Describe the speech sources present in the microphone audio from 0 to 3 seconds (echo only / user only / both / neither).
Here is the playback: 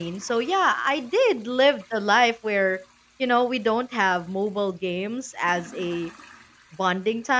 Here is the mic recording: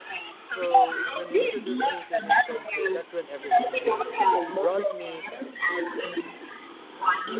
both